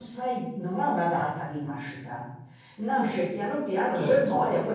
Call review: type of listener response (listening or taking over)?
listening